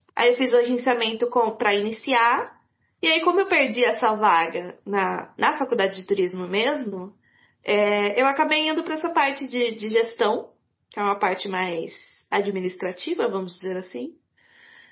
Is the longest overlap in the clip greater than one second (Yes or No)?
No